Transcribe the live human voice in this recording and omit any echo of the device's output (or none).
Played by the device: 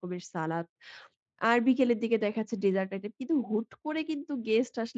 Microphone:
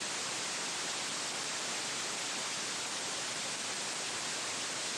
none